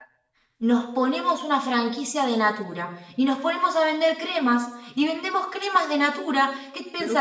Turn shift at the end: No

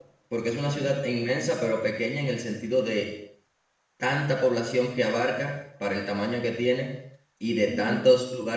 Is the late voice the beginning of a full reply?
No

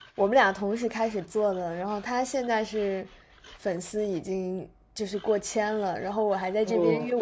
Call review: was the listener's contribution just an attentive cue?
Yes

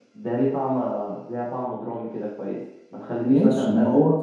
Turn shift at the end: Yes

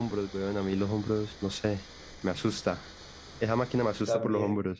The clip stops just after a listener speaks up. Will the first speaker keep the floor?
Yes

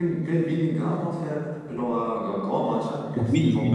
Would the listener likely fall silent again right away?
No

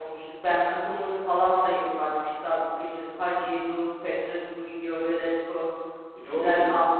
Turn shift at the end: No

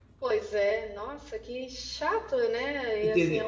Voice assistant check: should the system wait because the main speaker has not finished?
Yes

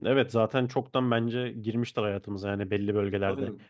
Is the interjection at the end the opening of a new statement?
No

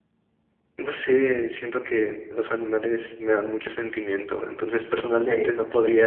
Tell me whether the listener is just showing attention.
Yes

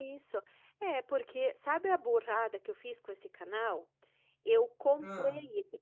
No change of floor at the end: Yes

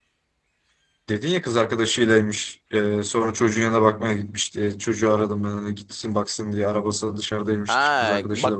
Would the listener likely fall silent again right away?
No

